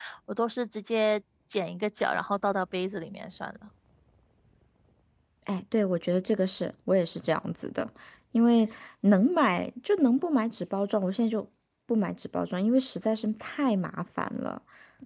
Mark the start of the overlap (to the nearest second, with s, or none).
none